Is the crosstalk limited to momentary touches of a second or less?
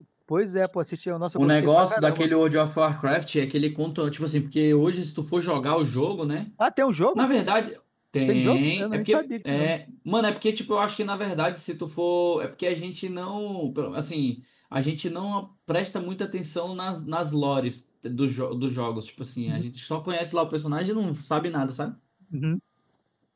No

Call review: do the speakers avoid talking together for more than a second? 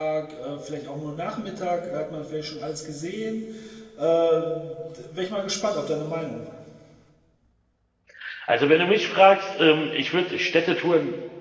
Yes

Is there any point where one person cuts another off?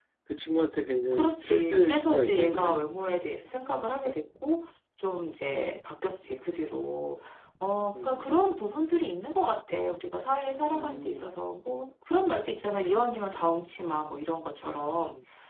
Yes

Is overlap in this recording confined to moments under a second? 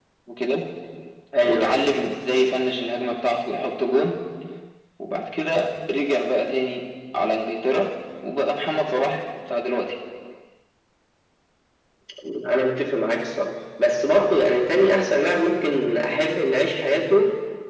Yes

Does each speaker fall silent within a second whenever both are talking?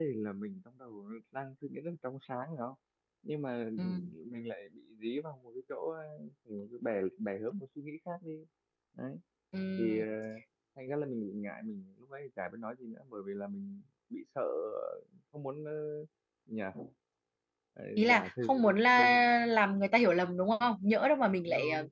No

